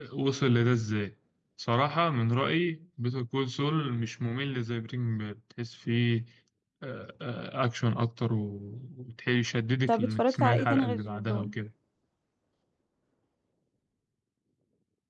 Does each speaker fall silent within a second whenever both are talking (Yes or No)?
No